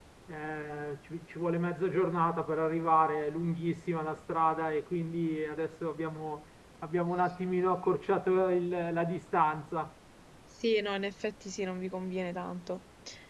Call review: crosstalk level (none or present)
none